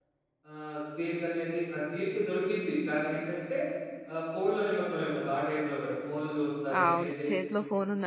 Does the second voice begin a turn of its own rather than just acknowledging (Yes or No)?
Yes